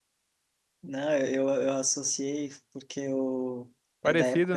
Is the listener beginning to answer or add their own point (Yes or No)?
No